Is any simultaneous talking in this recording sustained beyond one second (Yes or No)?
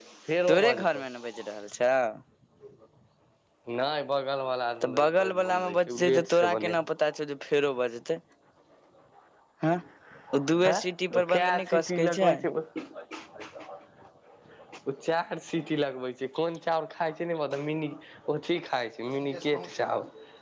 Yes